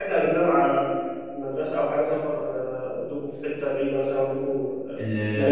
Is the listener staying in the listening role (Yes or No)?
No